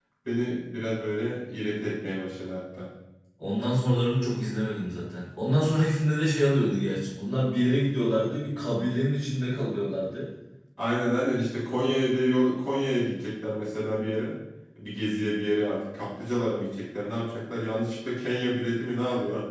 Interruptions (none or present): none